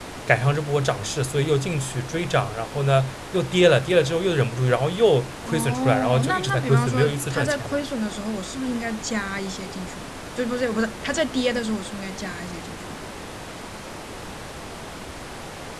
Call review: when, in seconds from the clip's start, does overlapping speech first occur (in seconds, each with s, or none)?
5.4 s